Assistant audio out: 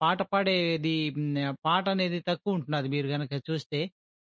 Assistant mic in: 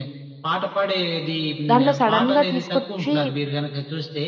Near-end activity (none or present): present